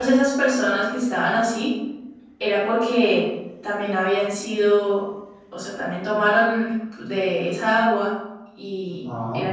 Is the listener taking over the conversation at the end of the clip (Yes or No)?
No